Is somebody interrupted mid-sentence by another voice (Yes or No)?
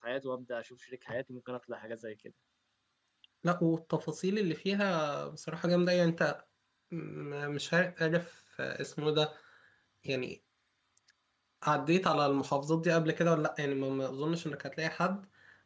No